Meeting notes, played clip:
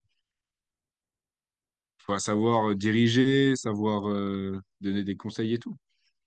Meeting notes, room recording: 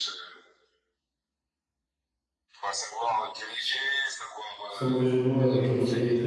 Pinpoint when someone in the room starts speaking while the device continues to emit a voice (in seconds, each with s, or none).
4.7 s